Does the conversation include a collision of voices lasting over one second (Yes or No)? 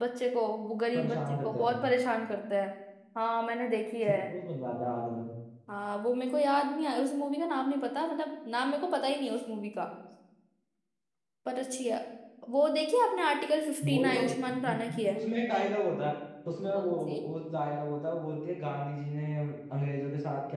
Yes